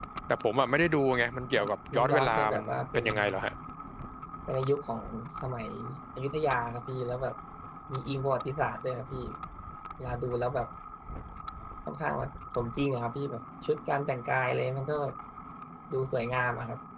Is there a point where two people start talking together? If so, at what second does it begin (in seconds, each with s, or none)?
1.6 s